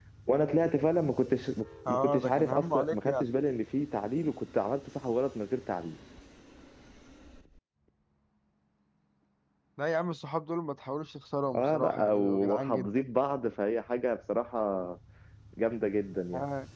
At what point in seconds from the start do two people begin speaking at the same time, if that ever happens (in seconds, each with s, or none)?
1.9 s